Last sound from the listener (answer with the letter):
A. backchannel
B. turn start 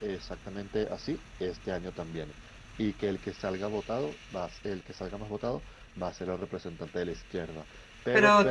B